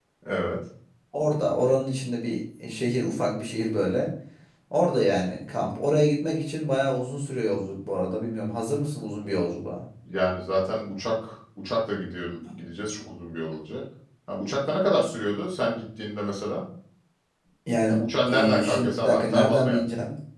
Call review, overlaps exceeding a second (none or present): present